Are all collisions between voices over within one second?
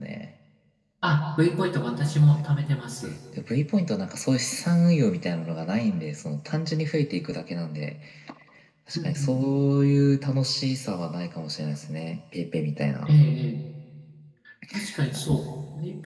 Yes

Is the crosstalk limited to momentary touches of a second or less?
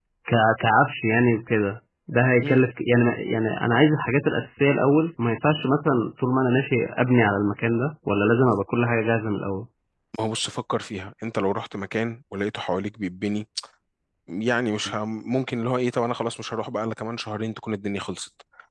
Yes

